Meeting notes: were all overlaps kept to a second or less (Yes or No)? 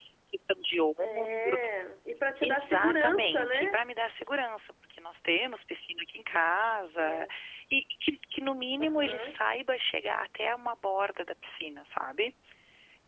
No